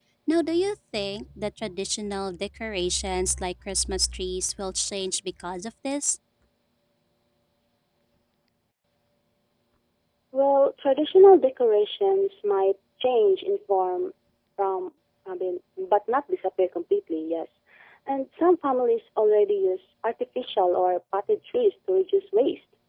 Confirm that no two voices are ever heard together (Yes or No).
Yes